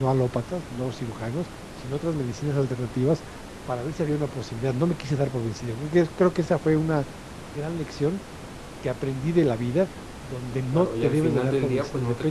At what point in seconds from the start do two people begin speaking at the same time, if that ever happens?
11 s

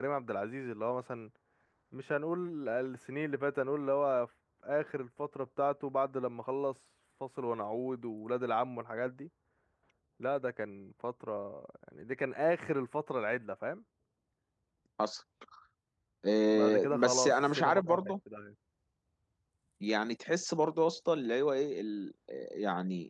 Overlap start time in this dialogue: 17 s

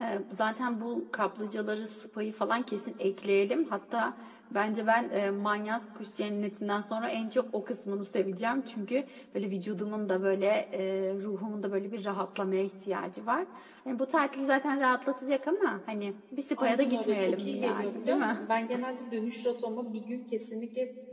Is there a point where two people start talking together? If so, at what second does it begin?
17 s

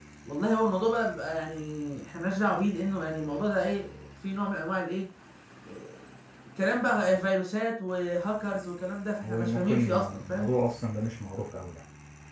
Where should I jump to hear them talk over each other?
9 s

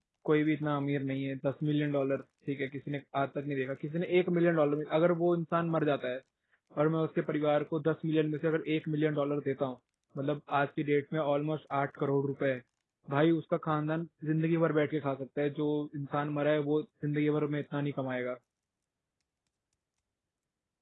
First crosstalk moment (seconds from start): none

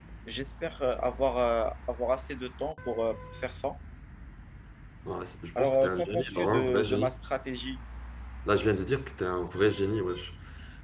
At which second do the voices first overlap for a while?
6 s

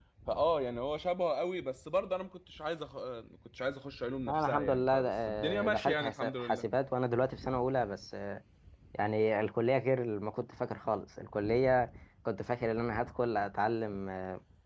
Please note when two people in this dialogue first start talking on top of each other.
4 s

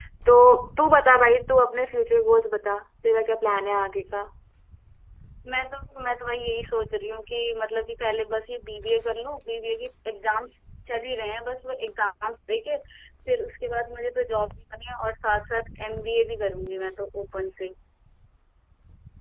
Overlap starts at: none

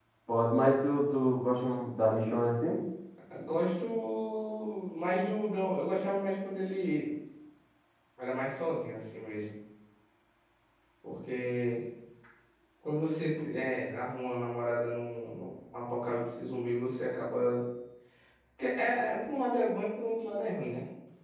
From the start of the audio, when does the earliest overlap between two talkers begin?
none

